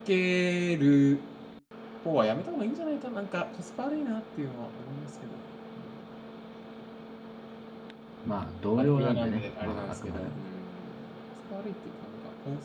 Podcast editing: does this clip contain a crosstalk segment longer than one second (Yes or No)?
Yes